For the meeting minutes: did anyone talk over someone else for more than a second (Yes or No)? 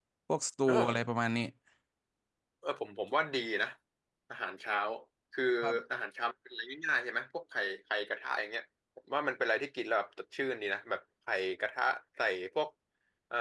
No